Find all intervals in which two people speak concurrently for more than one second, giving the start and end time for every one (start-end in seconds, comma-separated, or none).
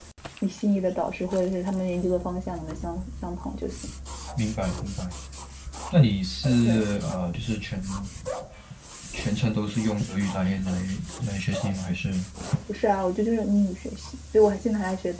none